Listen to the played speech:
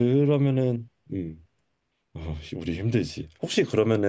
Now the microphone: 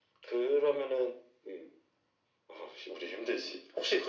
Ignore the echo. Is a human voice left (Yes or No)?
No